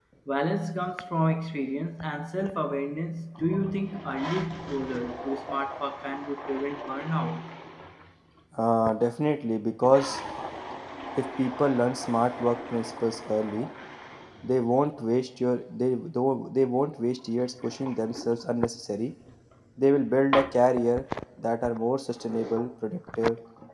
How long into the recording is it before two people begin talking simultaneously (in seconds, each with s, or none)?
none